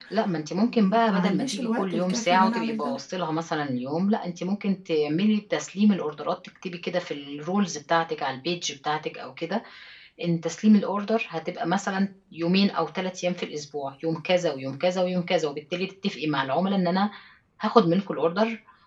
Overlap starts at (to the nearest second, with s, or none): 1 s